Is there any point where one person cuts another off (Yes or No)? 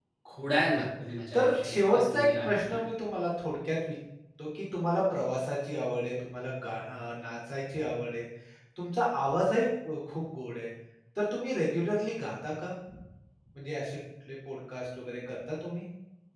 Yes